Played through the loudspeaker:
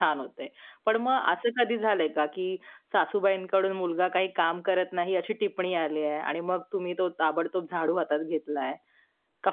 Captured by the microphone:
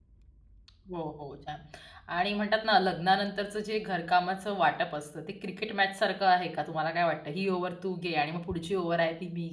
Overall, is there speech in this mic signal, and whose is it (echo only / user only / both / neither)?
user only